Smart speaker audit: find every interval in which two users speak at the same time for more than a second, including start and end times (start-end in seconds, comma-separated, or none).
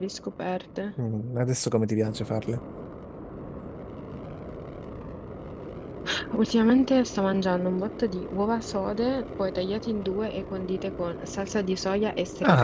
none